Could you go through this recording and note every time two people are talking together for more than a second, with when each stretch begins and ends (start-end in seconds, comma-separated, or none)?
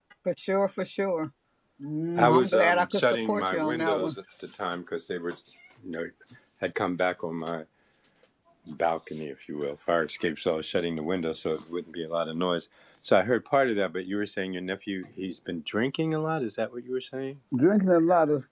2.2-4.1